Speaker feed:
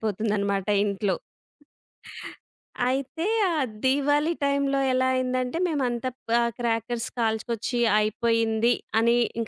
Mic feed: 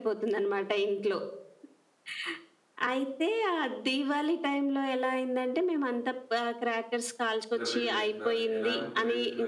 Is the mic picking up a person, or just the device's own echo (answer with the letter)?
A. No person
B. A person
B